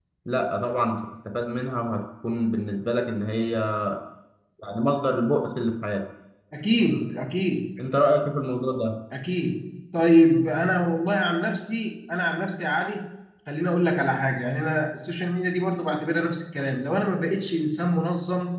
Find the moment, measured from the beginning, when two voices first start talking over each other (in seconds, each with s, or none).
none